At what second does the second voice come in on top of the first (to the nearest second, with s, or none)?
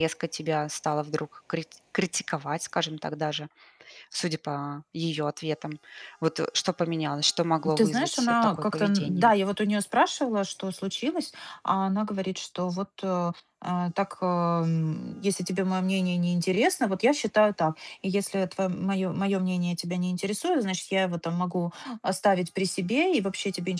8 s